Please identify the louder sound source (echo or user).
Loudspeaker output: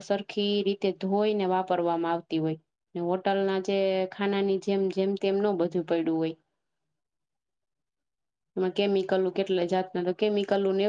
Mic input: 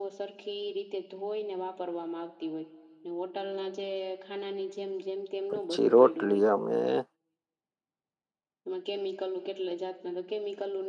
user